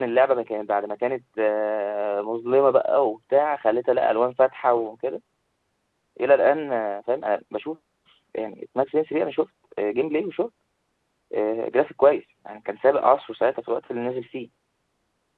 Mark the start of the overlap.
none

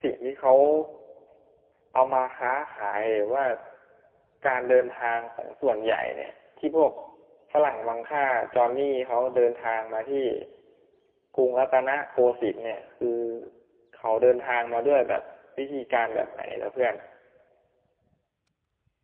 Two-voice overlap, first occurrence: none

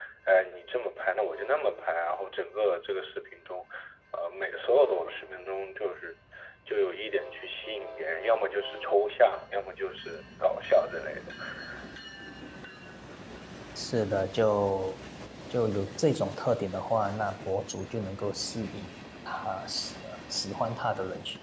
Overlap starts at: none

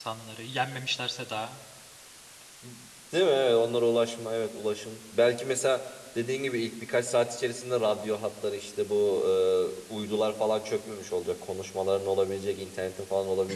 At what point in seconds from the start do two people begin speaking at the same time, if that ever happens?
none

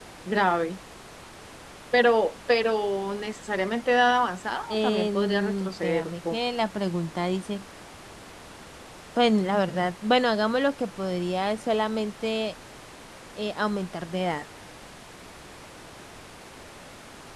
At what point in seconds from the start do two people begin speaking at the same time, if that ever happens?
4.7 s

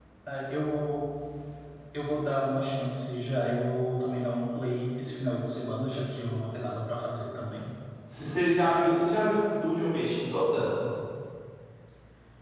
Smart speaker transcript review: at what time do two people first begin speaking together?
none

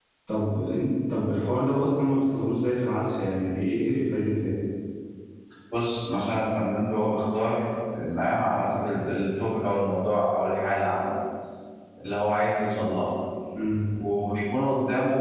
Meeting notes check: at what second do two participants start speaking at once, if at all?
none

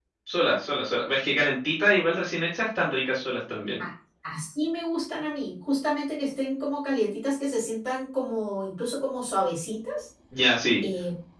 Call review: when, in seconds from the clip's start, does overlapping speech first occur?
none

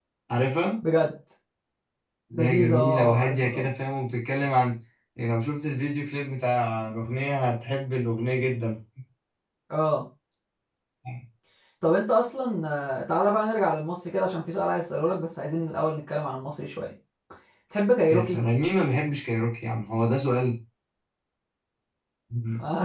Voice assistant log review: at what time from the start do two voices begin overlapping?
2.3 s

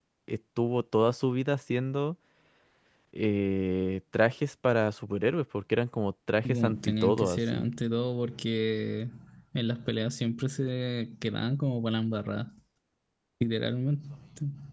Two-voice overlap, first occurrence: 6.5 s

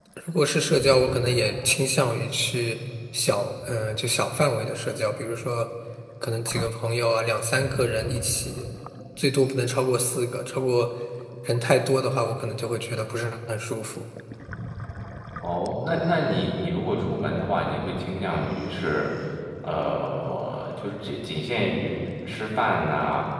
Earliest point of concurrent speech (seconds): none

